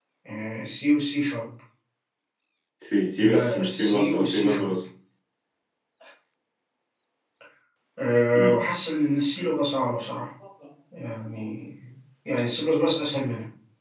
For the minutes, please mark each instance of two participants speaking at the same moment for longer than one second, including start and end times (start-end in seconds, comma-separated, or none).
3.2-4.8